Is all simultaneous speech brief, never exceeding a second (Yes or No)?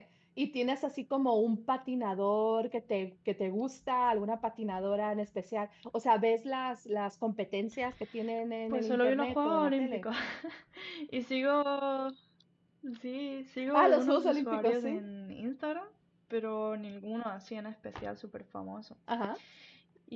No